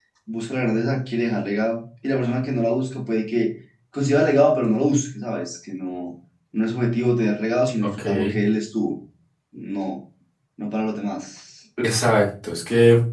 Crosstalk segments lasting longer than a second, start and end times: none

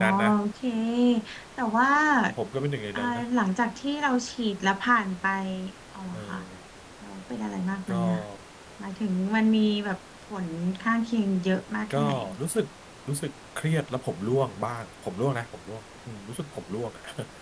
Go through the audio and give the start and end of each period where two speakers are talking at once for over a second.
none

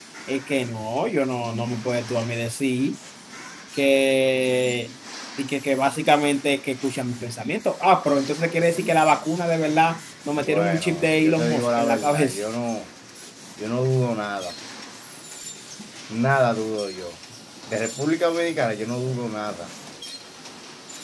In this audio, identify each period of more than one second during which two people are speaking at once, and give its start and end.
10.4-12.4

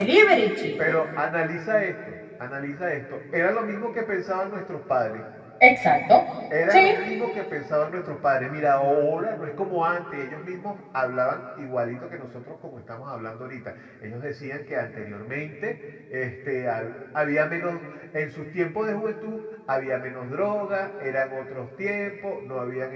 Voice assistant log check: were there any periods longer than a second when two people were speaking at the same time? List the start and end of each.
none

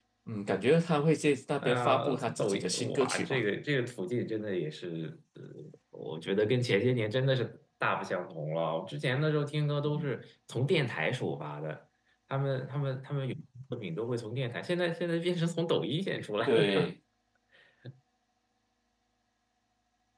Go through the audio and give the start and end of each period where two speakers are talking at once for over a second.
1.6-3.4

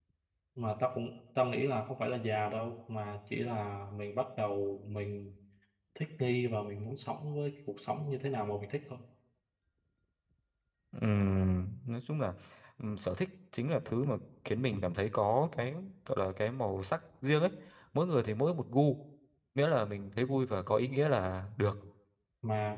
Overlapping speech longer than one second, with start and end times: none

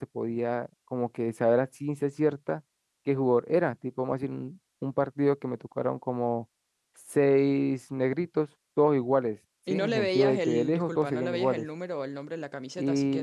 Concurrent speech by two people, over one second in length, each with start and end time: 9.7-11.7

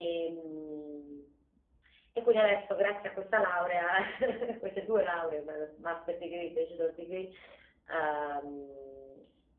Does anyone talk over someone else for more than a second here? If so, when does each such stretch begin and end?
none

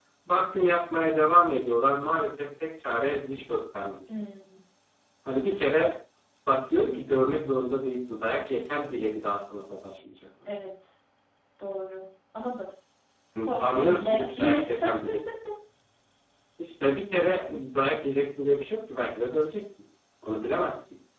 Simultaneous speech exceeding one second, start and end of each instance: 13.4-15.0

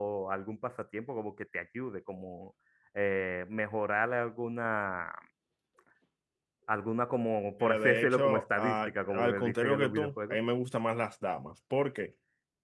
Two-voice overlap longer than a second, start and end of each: 7.6-10.4

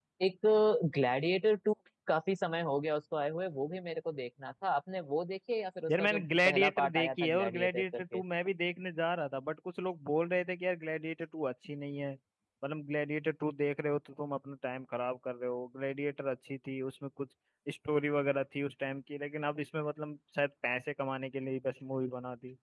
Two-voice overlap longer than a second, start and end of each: 5.9-8.2

